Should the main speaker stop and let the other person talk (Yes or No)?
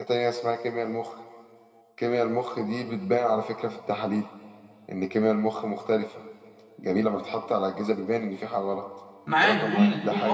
Yes